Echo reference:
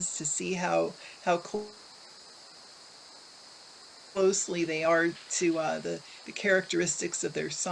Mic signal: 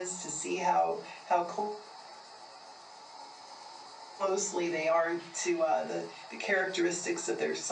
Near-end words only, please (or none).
none